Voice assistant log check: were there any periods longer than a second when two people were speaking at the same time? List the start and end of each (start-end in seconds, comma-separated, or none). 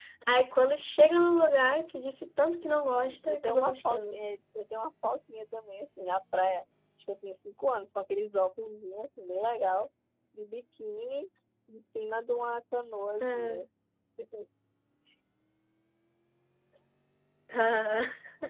2.6-4.2